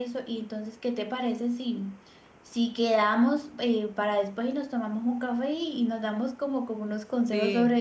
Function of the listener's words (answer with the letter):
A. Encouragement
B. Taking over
A